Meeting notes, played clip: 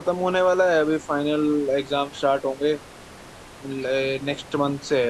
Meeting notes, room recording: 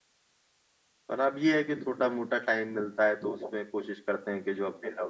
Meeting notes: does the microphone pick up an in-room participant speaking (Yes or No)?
Yes